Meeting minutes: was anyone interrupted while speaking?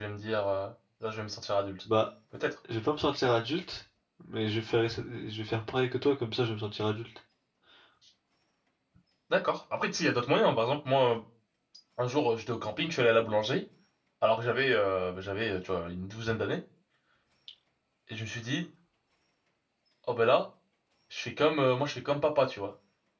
No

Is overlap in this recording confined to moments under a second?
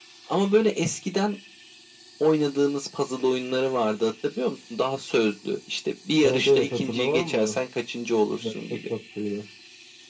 No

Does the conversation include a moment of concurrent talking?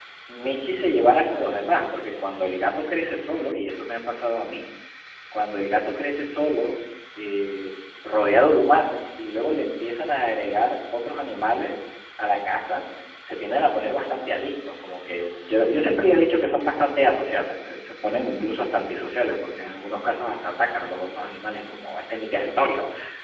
No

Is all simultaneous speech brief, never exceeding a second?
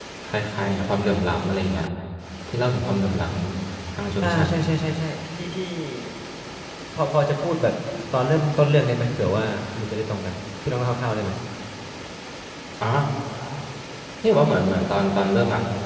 Yes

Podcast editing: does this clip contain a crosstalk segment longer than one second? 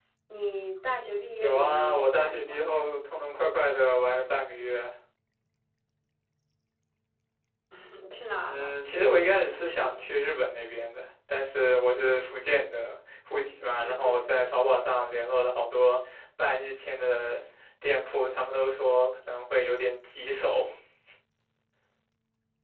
Yes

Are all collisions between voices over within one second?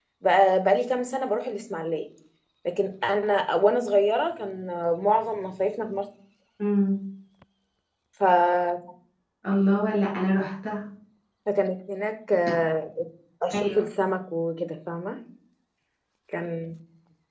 Yes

